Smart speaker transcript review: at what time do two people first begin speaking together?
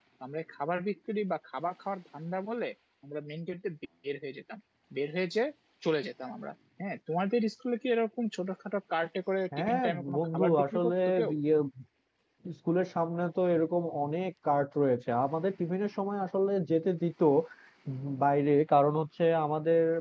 9.5 s

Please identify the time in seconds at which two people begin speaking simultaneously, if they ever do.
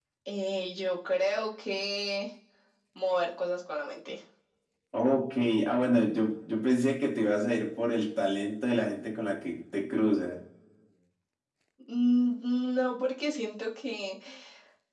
none

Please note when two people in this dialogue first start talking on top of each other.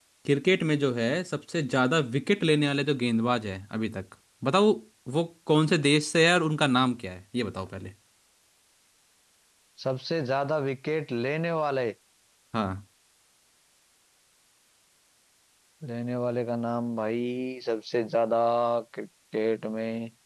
none

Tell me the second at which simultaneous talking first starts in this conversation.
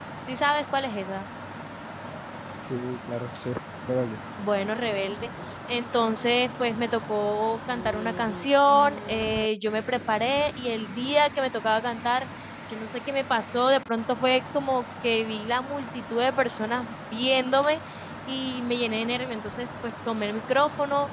none

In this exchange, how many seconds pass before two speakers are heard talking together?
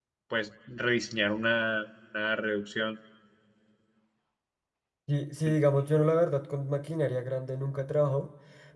none

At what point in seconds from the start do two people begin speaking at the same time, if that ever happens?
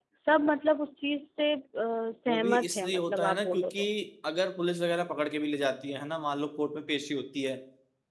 2.3 s

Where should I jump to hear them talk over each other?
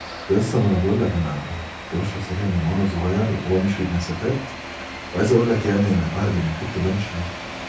none

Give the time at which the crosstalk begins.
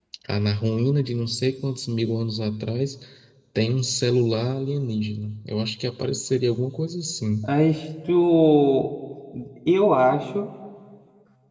none

